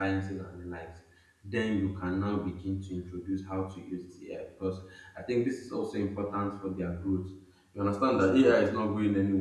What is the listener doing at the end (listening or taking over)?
listening